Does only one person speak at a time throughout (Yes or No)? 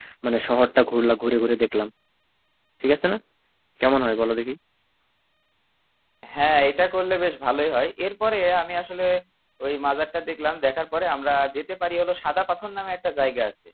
Yes